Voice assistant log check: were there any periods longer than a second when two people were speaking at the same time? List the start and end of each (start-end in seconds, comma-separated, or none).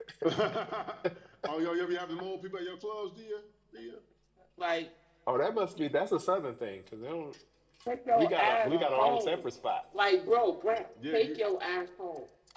8.2-9.4